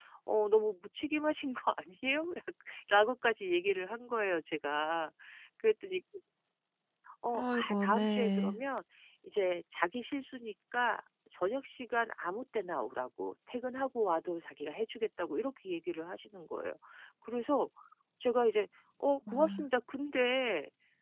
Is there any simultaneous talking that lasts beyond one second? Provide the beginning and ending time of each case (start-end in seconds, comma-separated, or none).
7.3-8.6